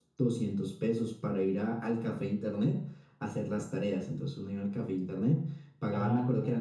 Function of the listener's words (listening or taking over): taking over